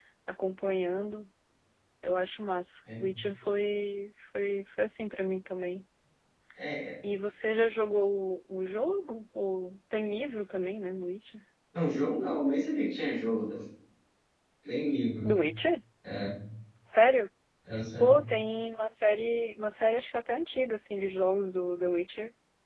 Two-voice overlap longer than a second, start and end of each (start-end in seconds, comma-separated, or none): none